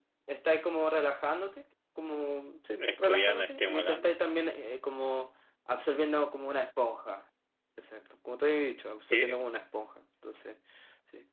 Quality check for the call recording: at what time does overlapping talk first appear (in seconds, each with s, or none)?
2.9 s